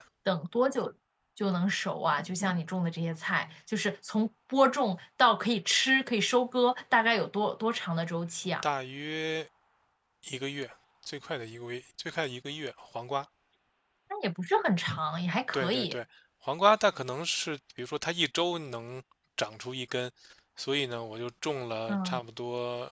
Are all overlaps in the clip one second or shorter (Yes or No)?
Yes